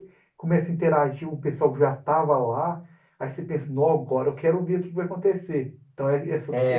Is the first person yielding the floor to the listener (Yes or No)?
No